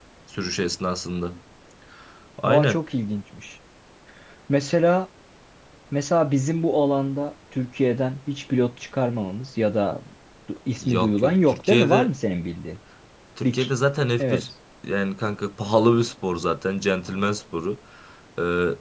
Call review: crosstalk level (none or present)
present